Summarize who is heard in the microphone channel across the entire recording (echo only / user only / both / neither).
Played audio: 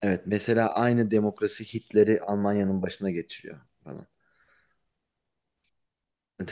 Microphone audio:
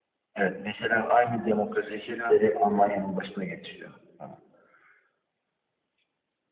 both